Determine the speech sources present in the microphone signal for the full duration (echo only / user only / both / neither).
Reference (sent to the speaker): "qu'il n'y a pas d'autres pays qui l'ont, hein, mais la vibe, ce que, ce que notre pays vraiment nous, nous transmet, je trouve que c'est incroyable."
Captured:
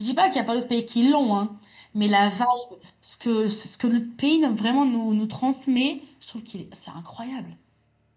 echo only